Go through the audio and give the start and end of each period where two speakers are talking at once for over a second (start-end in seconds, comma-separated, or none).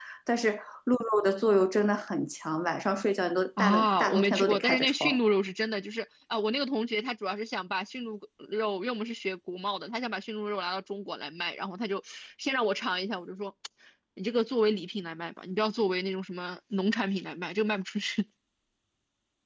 3.6-5.2